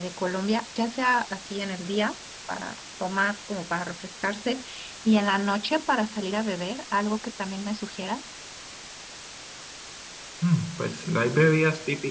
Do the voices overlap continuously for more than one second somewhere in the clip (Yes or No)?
No